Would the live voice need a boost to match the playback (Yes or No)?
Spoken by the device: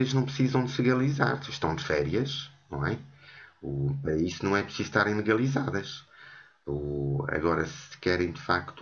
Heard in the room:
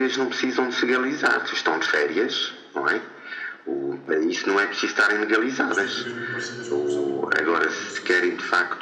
Yes